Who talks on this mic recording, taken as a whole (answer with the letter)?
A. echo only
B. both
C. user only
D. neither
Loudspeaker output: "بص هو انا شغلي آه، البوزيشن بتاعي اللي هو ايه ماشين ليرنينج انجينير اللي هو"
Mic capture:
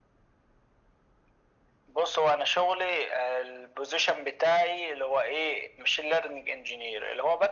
A